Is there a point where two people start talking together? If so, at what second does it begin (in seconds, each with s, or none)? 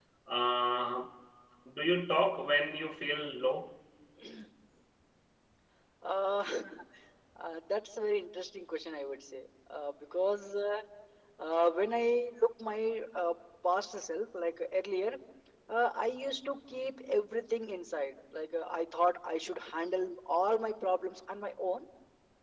none